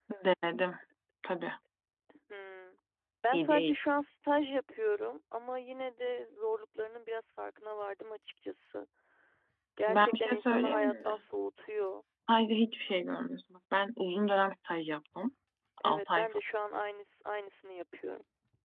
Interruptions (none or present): present